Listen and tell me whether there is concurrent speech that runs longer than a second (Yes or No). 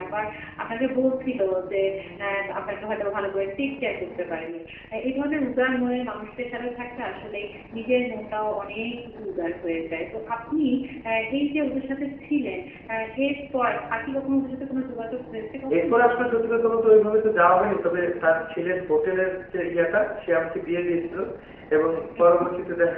No